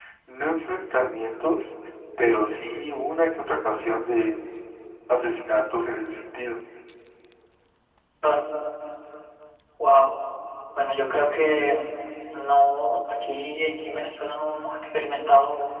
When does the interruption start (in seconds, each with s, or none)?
none